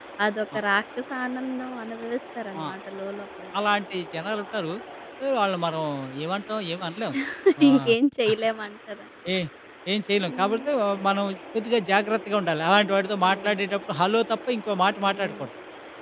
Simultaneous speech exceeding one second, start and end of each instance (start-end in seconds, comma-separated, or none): none